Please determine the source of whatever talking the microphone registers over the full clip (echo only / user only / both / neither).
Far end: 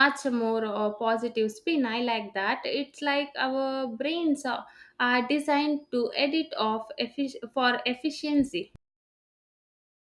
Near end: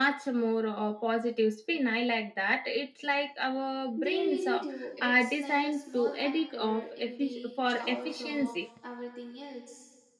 both